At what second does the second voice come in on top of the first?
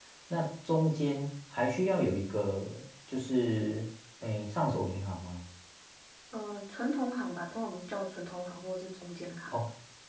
none

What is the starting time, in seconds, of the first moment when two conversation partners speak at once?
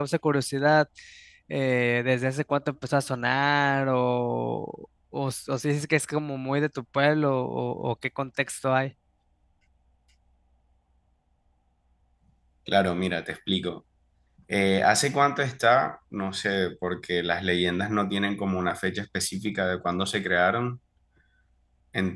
none

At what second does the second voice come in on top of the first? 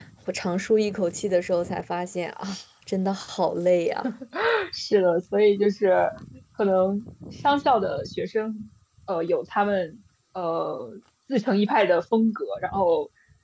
none

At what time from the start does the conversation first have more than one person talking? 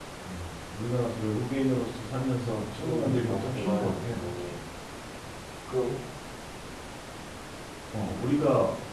2.8 s

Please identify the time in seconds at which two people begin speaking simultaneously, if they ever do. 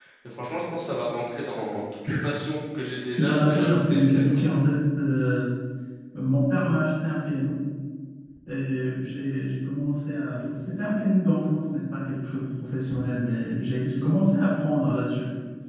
3.1 s

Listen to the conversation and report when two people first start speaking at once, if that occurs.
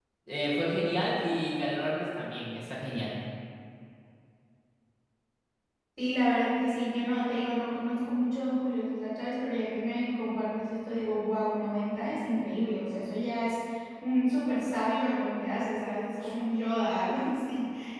none

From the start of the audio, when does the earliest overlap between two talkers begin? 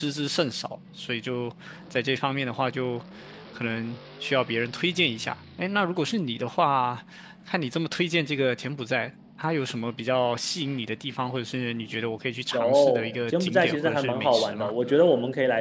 12.5 s

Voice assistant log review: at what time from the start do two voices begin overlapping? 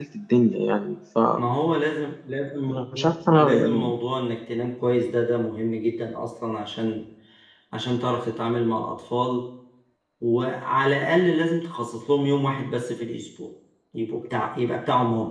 2.7 s

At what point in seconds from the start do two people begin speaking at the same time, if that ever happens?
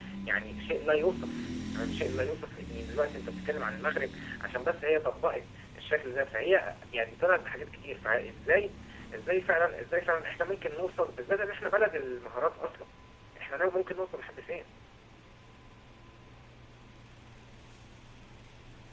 none

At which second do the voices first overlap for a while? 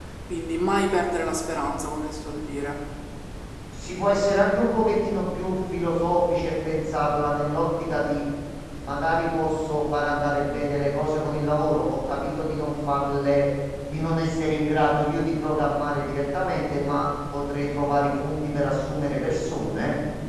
none

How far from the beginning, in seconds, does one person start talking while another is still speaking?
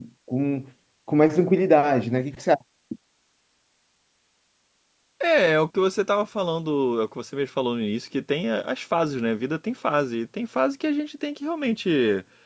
none

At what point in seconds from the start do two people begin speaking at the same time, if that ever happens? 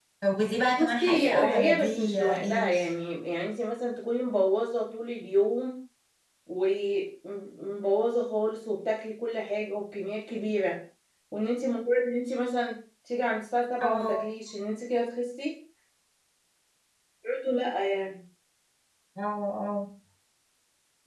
0.8 s

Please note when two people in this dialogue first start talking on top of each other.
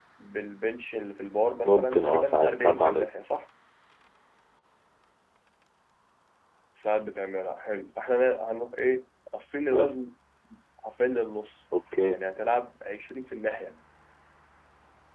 1.6 s

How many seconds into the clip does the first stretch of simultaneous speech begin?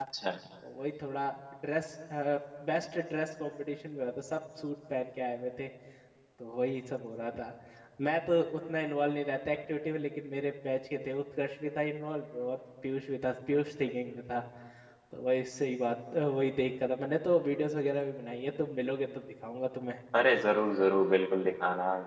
none

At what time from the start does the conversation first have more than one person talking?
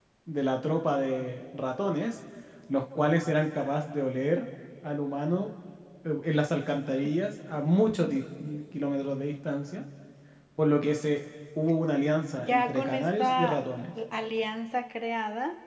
12.4 s

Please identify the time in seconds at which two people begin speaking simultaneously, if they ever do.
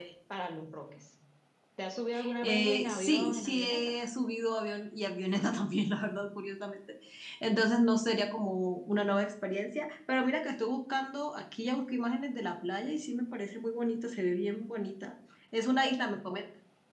2.4 s

